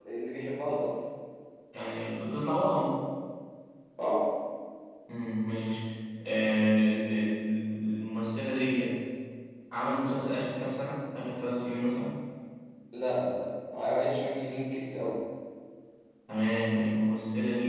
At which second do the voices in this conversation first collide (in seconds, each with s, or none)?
none